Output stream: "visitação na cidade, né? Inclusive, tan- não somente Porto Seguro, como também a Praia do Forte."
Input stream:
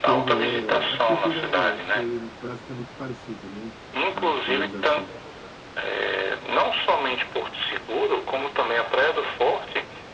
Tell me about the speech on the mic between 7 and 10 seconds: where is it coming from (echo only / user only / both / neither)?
echo only